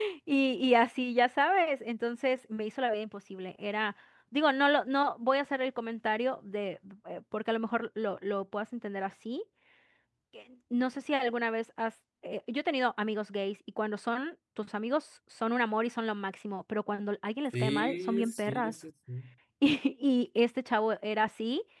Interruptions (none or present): present